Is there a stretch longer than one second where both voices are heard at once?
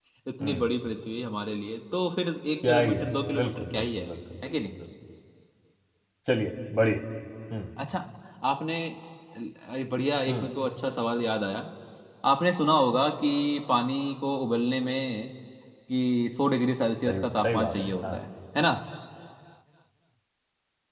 Yes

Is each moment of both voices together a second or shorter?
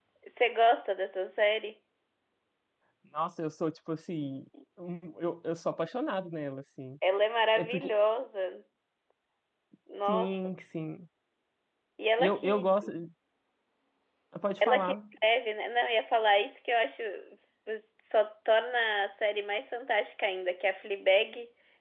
Yes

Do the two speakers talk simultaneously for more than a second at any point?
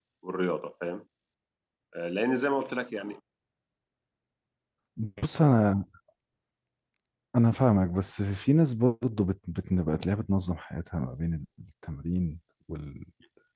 No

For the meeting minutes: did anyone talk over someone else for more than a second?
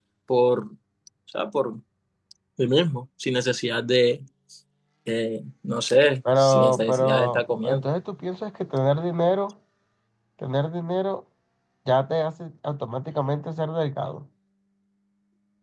Yes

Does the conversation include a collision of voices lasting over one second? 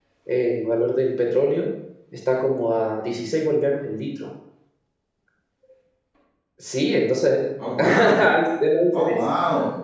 No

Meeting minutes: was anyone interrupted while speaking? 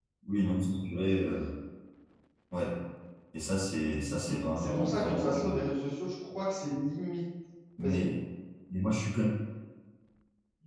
Yes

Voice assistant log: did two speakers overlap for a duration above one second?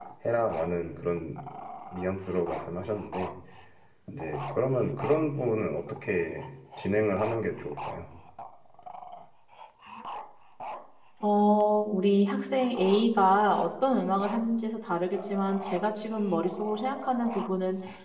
No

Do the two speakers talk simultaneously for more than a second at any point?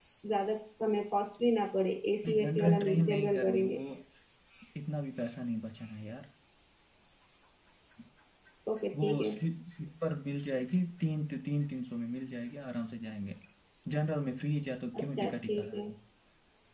Yes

